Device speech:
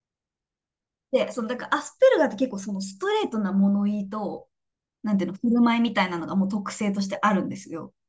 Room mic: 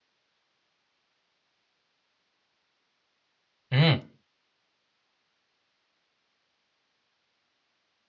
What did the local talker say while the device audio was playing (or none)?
うん、